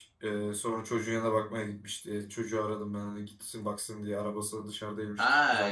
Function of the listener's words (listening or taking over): taking over